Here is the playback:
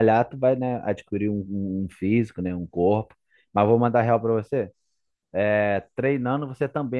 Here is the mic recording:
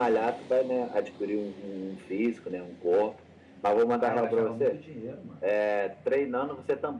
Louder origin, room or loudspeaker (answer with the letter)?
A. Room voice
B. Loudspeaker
B